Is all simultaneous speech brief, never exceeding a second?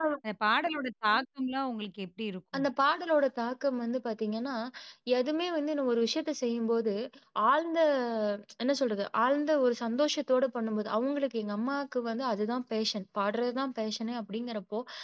Yes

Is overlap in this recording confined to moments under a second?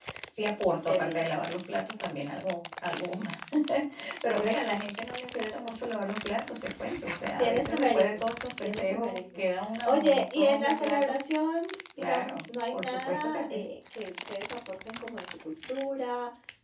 No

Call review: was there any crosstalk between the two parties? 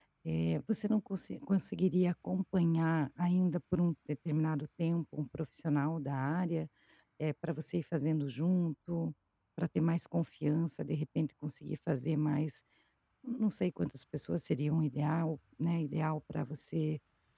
No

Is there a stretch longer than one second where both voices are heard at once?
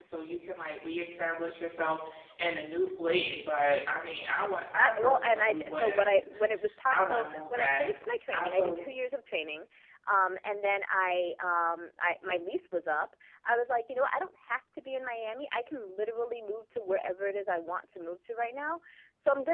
Yes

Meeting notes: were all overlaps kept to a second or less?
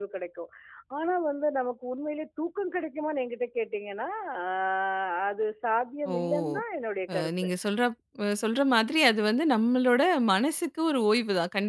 Yes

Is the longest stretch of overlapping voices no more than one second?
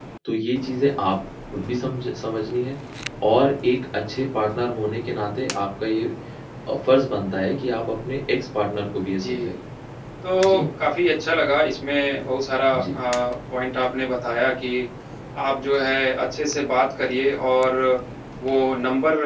Yes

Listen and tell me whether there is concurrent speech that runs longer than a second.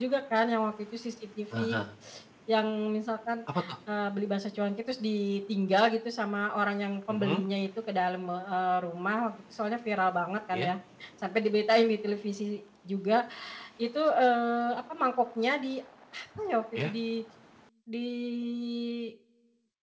No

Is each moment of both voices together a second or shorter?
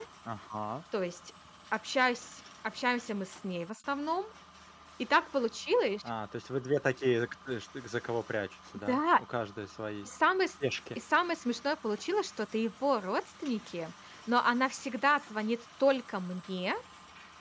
Yes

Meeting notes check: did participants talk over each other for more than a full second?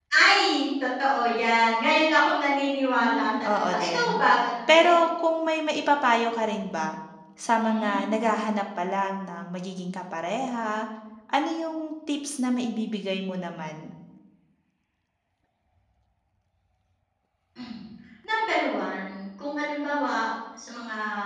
Yes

